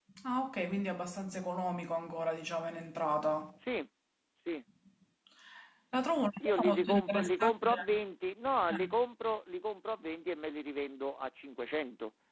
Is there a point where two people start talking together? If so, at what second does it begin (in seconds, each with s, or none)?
6.5 s